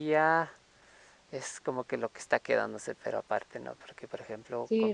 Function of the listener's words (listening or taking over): taking over